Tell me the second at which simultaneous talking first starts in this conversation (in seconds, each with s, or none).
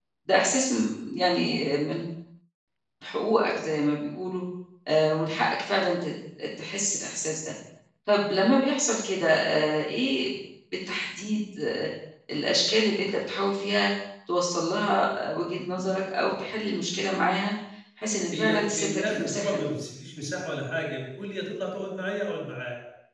18.3 s